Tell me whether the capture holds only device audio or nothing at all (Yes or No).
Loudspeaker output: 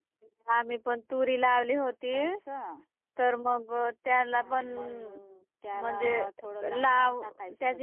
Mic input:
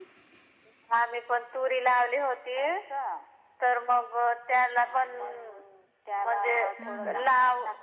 No